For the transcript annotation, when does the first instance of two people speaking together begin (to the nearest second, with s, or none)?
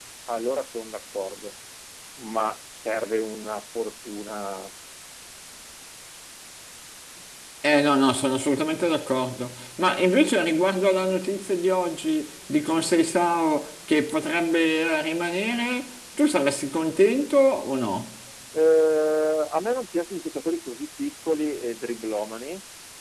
none